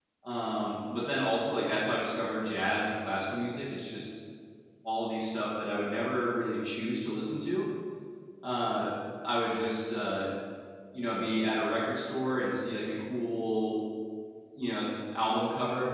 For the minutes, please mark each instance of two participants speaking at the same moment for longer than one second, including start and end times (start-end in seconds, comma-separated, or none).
none